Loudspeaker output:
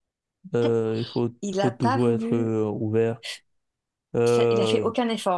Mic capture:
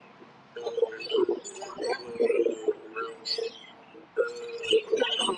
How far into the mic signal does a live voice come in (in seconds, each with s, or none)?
none